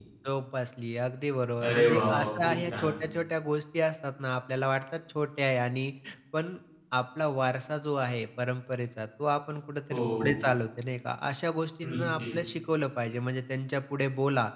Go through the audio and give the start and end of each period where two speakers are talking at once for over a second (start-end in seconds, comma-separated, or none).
1.7-2.9